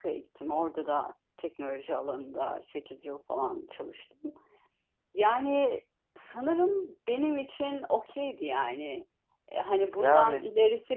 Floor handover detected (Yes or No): No